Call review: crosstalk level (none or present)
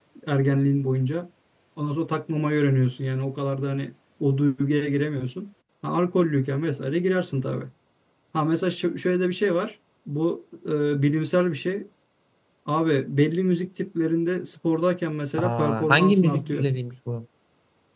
present